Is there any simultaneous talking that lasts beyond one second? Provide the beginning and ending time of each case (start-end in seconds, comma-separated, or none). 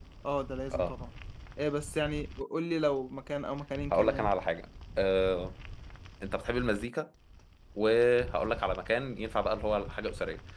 none